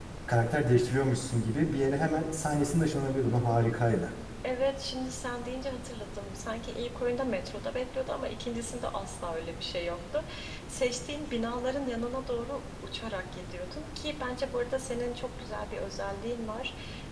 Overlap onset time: none

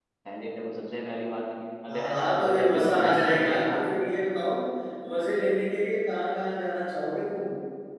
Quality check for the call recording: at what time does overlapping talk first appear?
1.9 s

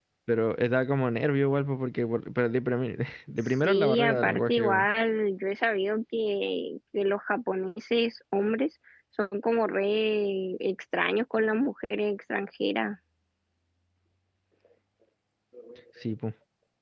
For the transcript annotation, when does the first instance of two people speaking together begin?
3.4 s

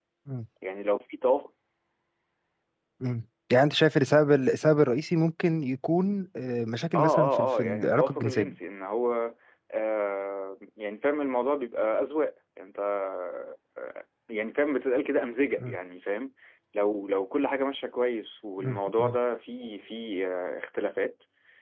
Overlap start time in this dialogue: 6.9 s

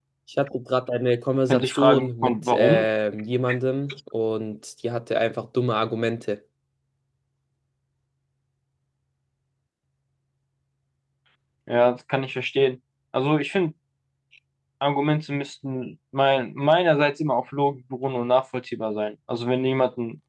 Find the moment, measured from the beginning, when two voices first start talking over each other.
1.5 s

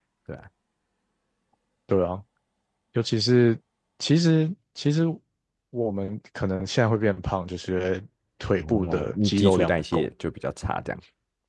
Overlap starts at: 8.6 s

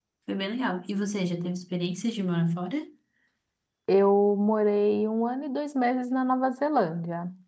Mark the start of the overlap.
none

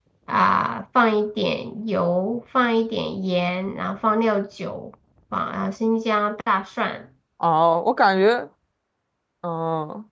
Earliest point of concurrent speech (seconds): none

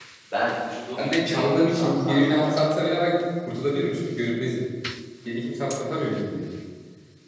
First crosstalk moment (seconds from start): 1.0 s

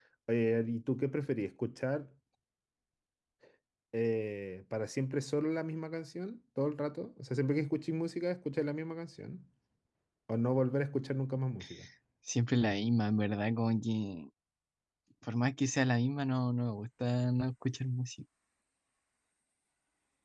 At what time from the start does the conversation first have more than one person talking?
none

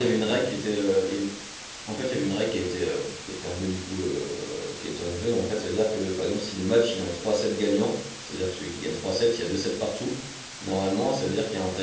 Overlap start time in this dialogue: none

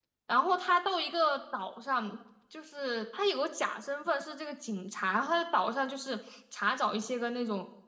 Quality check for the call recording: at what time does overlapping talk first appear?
none

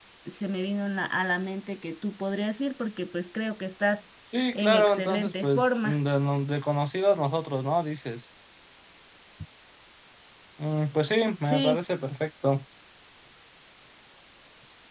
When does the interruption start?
4.5 s

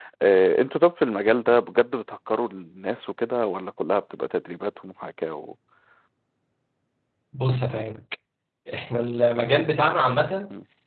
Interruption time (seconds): none

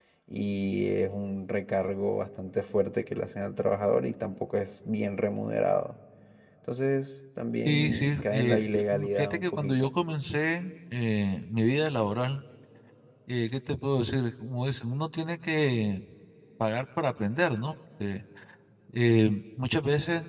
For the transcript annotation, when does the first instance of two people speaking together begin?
7.7 s

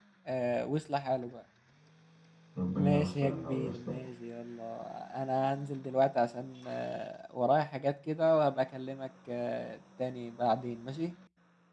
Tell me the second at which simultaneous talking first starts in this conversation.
2.8 s

